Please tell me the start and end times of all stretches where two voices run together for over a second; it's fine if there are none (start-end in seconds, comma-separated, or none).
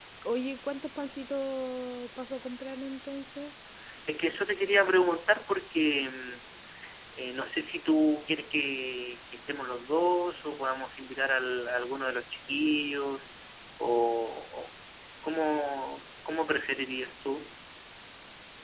none